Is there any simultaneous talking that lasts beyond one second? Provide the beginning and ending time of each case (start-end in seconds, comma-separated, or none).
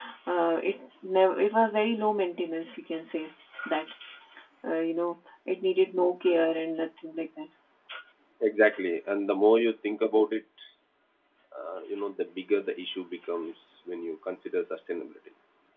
none